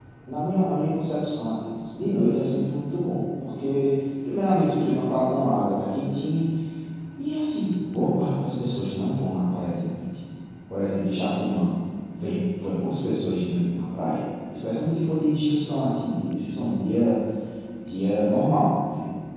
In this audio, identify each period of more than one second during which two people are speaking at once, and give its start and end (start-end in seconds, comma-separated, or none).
none